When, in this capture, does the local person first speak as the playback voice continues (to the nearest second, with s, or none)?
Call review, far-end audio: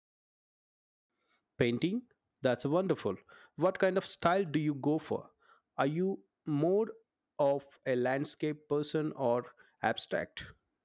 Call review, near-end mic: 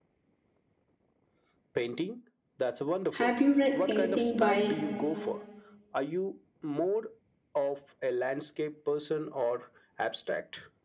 3 s